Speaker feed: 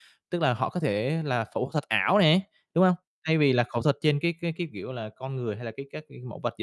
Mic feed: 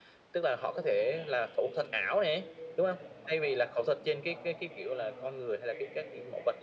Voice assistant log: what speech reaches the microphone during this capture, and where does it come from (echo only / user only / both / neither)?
both